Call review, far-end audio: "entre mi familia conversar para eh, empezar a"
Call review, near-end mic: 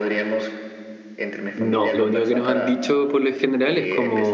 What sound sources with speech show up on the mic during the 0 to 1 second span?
echo only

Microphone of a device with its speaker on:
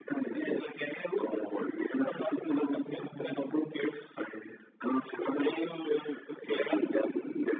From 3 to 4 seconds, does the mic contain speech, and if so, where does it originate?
echo only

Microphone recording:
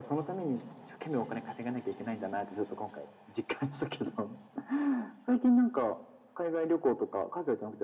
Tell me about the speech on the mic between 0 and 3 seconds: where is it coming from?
echo only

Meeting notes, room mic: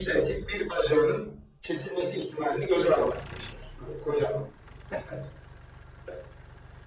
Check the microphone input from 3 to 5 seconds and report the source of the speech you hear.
echo only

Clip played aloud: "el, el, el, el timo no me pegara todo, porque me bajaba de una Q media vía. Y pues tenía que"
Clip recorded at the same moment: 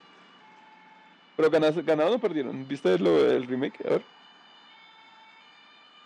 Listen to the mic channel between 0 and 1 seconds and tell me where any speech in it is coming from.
neither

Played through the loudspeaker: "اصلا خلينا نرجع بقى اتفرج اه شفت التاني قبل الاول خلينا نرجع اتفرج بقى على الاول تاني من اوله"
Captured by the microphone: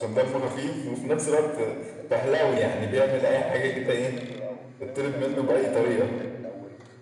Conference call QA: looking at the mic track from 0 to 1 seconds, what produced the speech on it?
both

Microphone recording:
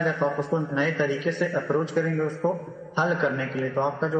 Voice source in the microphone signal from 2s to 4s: echo only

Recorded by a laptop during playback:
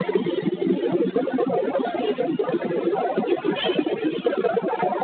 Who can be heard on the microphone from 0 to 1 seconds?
echo only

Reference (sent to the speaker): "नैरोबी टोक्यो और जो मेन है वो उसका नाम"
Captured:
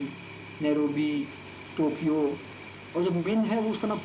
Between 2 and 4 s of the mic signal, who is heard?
echo only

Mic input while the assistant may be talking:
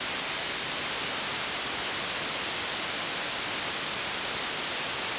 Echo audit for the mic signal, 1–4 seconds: neither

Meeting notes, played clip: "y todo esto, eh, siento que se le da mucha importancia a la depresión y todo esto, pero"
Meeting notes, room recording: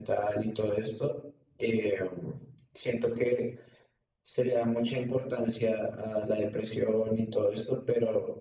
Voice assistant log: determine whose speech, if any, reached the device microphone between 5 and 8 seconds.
echo only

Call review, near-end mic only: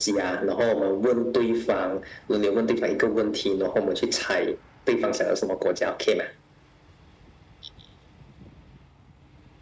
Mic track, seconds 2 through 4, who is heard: echo only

